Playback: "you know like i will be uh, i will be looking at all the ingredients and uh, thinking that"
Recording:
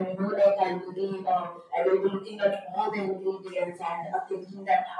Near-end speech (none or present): none